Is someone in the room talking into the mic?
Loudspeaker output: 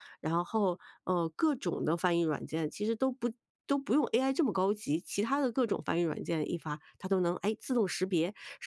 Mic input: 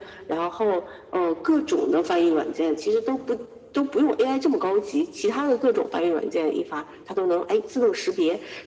No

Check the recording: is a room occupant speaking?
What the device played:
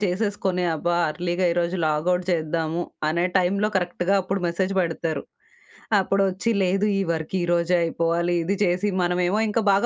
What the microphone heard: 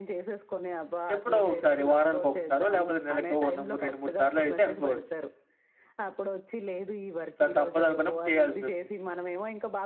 Yes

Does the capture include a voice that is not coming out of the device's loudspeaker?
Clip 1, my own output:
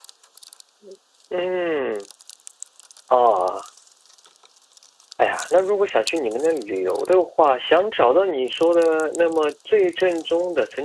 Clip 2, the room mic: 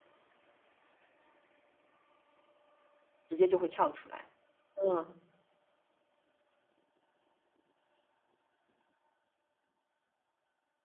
Yes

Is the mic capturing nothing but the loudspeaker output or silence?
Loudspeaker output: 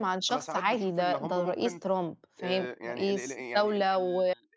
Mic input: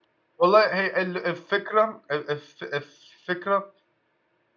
No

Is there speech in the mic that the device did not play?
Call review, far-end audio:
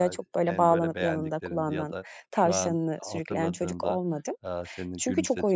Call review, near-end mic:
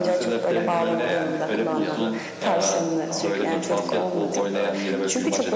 Yes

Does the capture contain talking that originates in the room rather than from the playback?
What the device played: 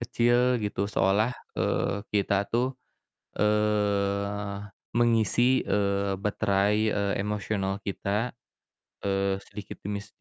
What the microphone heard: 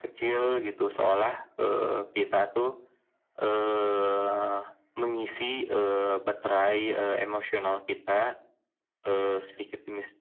No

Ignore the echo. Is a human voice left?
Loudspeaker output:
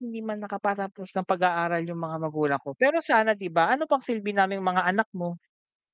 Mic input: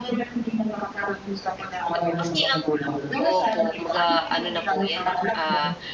Yes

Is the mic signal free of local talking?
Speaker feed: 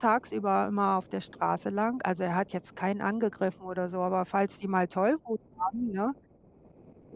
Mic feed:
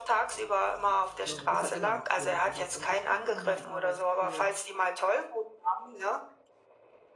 No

